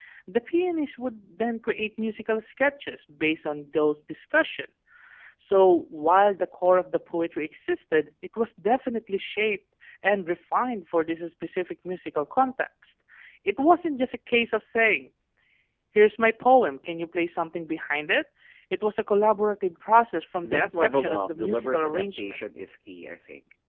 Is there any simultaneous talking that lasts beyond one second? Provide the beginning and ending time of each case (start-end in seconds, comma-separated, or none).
20.4-22.4